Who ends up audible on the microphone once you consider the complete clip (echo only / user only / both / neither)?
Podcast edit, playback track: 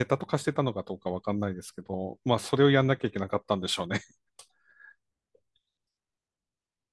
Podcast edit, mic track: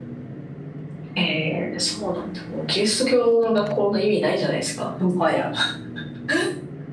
user only